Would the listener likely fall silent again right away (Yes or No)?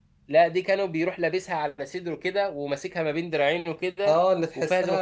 No